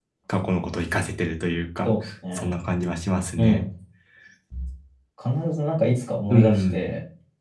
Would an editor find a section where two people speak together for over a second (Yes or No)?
No